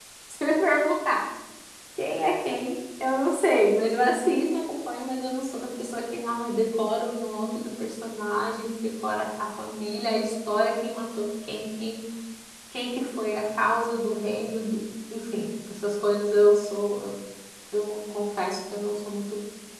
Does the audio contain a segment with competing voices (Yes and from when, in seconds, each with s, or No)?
No